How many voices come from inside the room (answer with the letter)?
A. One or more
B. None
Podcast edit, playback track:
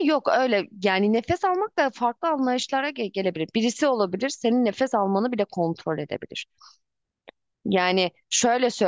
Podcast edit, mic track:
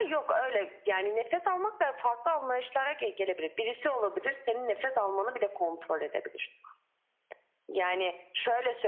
B